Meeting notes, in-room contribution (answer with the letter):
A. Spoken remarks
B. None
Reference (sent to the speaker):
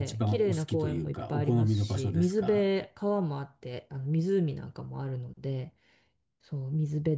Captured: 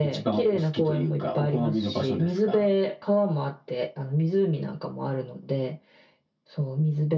B